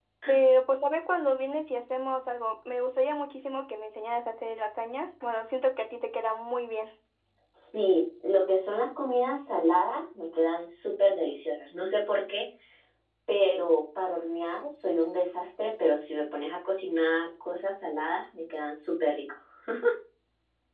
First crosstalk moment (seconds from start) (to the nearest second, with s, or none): none